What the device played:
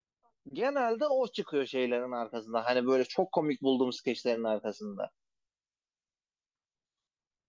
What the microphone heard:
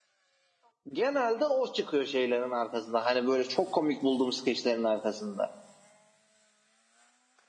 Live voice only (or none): none